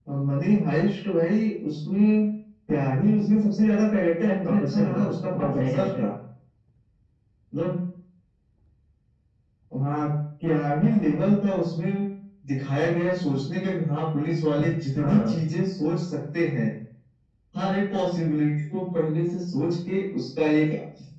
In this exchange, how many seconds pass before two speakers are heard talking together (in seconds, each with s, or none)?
4.2 s